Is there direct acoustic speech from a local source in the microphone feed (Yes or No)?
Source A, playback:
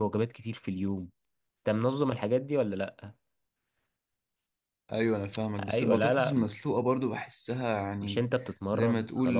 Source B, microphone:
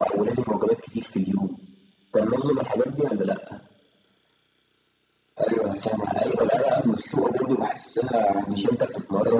No